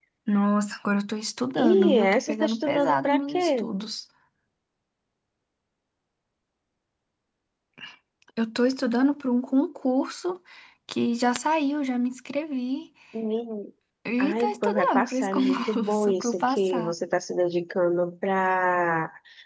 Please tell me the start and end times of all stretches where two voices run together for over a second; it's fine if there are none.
1.6-3.7, 14.2-16.9

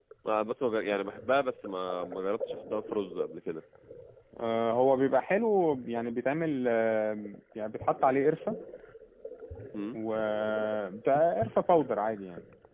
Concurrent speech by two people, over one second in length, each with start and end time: none

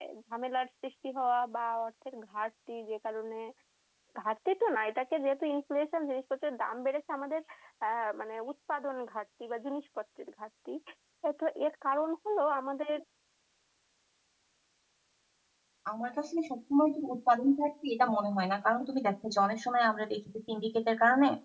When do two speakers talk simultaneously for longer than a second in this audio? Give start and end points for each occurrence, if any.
none

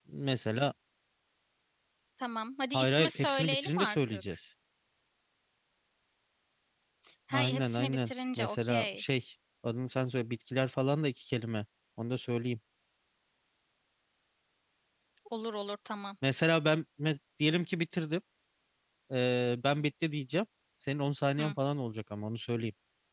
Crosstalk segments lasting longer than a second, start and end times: 2.7-4.2, 7.3-9.0

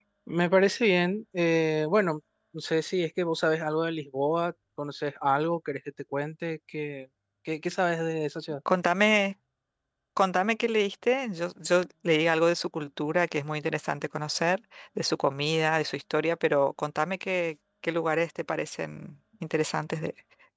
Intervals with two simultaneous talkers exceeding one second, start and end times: none

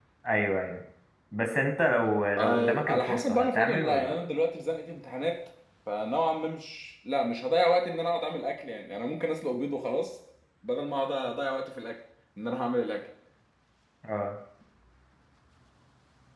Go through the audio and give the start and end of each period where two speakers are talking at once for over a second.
2.4-4.1

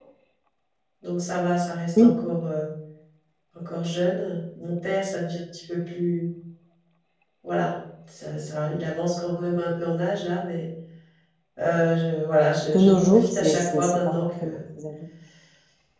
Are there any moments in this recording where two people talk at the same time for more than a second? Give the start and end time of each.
12.7-14.6

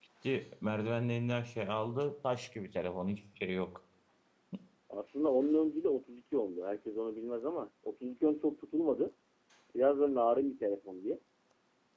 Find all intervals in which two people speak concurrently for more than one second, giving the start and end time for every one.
none

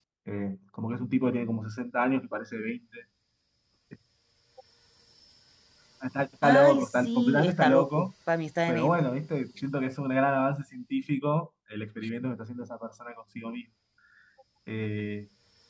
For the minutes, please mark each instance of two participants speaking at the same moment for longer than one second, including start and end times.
6.4-8.1

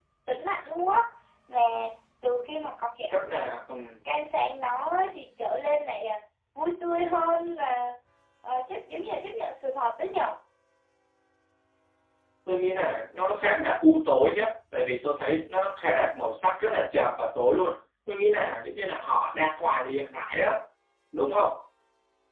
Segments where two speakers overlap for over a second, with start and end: none

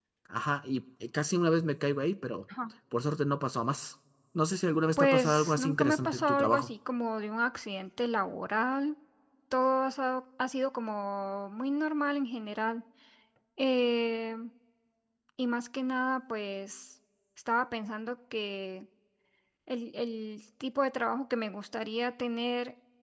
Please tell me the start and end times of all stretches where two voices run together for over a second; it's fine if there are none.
5.0-6.7

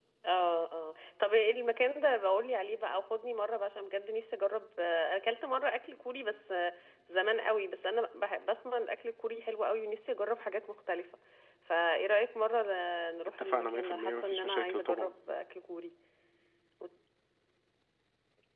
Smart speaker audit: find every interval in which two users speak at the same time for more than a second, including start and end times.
13.4-15.1

